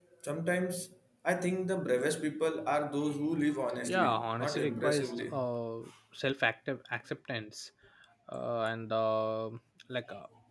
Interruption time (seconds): 3.8 s

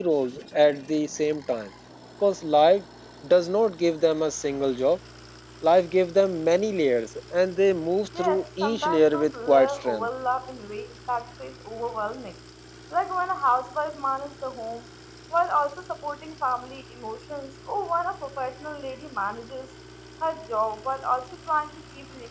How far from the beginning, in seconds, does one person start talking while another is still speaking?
8.1 s

